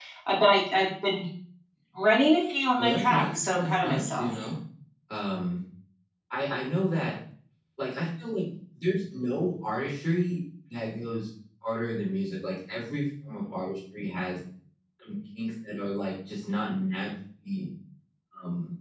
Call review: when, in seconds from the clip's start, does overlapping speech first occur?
2.8 s

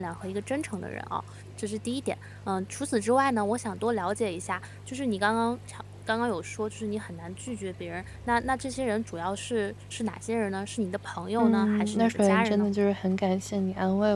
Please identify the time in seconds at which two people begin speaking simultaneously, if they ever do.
11.4 s

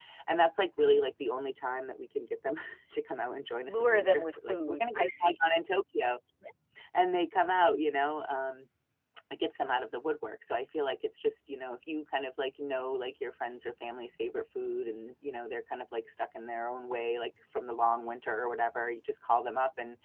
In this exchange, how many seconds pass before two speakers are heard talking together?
3.7 s

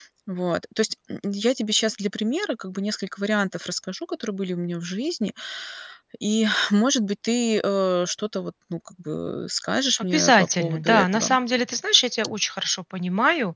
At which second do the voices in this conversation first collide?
9.9 s

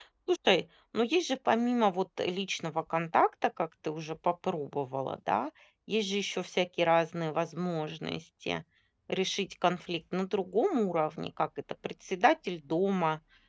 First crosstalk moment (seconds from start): none

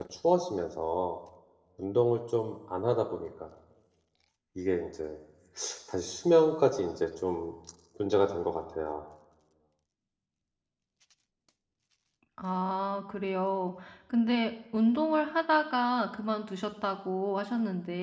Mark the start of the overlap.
none

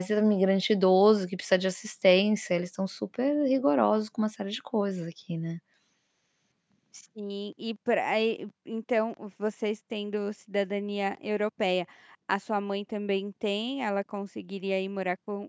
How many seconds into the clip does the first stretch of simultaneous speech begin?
none

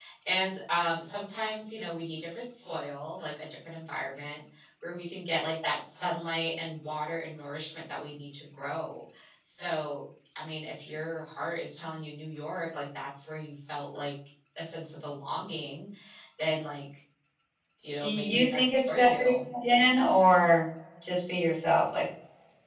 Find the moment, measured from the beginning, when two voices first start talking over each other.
18.0 s

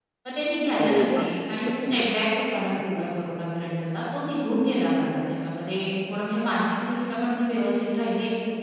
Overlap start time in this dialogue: 0.8 s

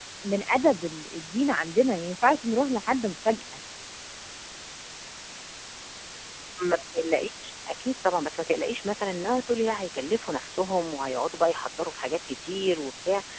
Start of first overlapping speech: none

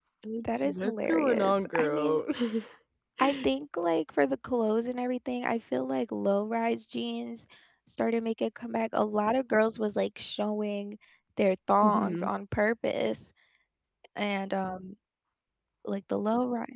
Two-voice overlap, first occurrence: 0.6 s

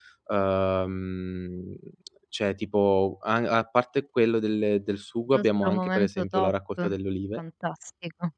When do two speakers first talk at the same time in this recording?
5.3 s

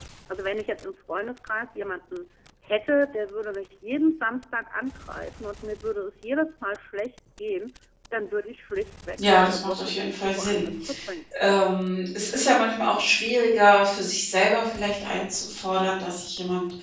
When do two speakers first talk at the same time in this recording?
9.2 s

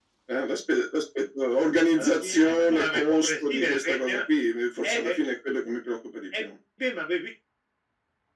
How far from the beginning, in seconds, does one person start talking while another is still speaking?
2.0 s

